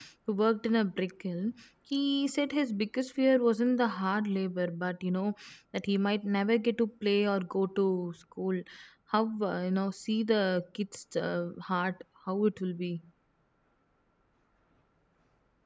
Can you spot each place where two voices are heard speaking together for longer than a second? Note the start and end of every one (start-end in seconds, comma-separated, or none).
none